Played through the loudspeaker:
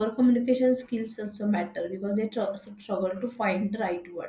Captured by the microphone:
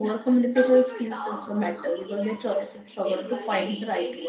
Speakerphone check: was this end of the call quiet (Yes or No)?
No